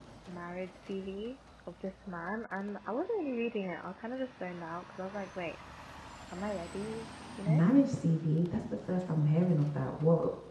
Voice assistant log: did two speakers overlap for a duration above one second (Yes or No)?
No